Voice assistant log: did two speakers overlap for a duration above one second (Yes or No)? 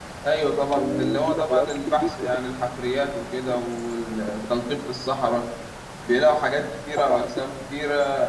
Yes